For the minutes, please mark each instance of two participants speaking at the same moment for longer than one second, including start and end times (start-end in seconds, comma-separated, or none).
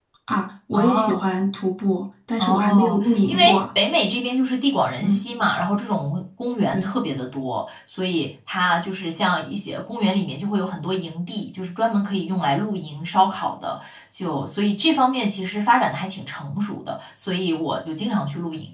2.4-3.6